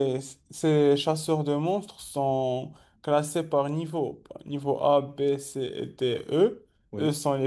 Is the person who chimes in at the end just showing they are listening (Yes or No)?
Yes